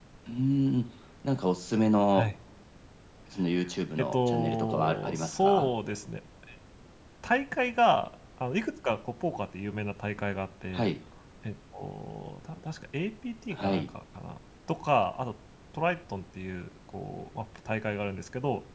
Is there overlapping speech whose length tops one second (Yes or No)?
Yes